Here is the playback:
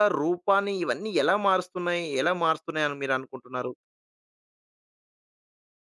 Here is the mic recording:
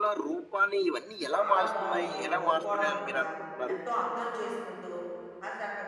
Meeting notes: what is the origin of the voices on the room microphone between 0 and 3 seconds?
both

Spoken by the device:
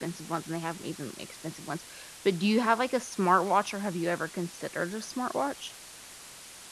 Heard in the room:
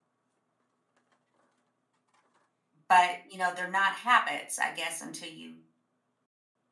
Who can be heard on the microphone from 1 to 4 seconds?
user only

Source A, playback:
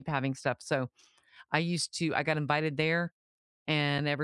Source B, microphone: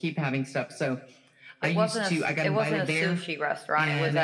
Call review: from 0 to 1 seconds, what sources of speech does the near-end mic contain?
echo only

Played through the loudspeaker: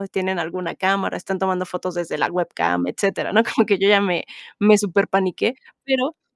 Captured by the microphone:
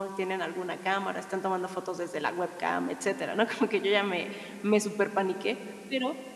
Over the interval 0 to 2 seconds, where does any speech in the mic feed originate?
echo only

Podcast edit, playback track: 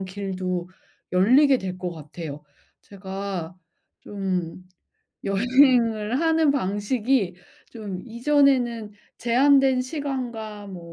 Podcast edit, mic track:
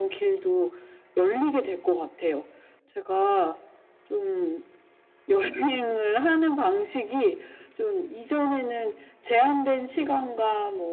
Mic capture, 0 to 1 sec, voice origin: echo only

